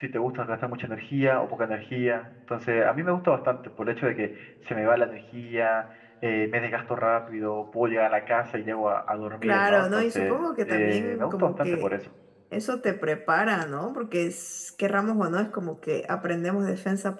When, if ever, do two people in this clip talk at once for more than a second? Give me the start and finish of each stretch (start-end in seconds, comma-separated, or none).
9.4-11.9